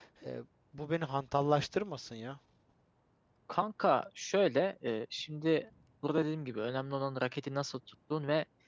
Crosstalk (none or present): none